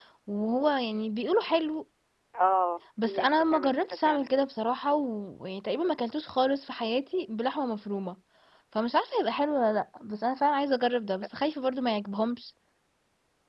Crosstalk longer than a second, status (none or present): present